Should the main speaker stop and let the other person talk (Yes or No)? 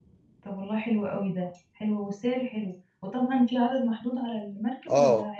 Yes